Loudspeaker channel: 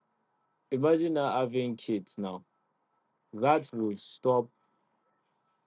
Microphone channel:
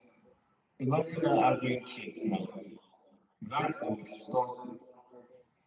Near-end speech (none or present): none